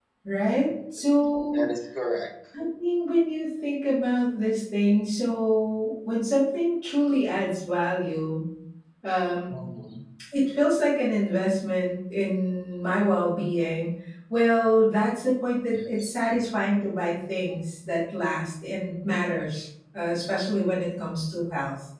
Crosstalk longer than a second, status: none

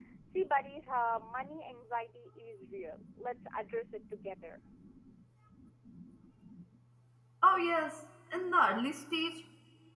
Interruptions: none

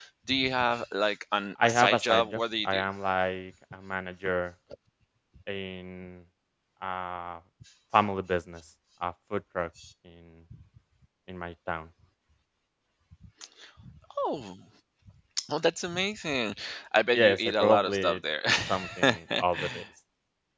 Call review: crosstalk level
present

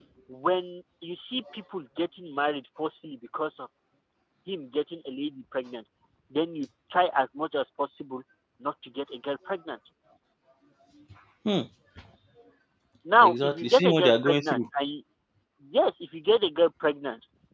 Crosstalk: present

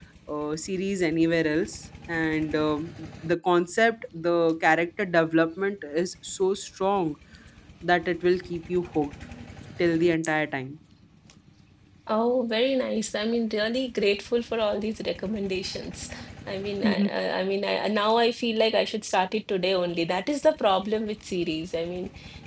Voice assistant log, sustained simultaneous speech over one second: none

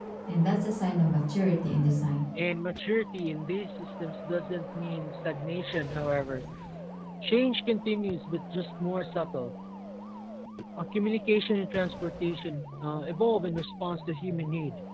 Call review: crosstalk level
none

